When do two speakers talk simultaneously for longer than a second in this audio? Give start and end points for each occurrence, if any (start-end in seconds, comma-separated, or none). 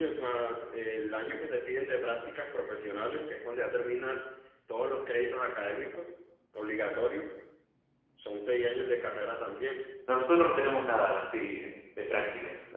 none